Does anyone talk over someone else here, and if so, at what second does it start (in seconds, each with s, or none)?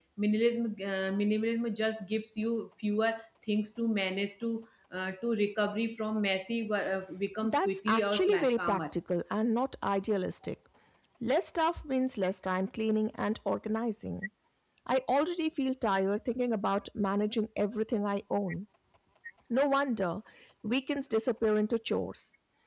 7.4 s